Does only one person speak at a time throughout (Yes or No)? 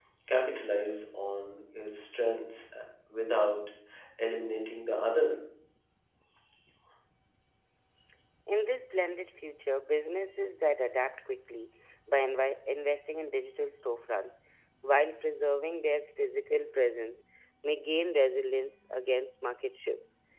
Yes